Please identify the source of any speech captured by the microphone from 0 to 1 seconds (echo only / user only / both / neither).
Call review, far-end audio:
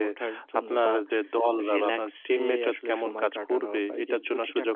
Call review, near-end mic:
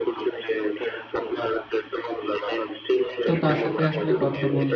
echo only